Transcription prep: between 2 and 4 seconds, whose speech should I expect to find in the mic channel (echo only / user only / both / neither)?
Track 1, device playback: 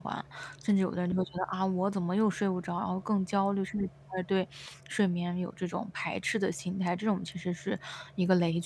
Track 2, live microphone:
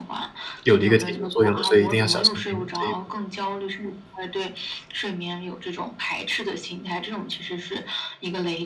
both